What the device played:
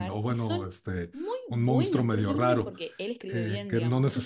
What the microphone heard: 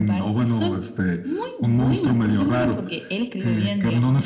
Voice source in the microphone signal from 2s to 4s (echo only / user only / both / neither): echo only